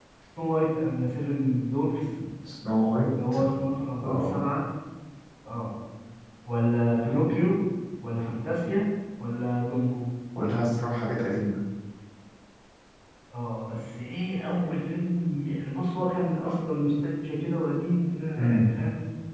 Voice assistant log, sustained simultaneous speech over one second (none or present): none